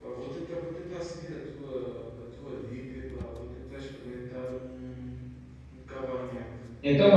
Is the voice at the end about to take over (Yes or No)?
Yes